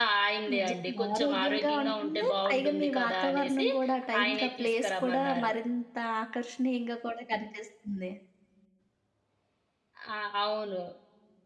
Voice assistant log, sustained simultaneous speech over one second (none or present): present